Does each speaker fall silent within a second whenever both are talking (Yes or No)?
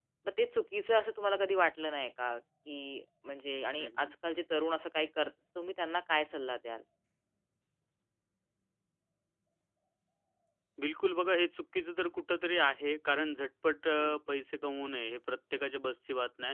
Yes